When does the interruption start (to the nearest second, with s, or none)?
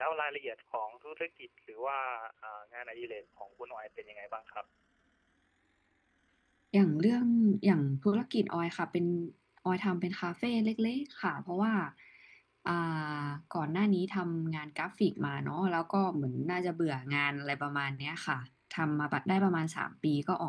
none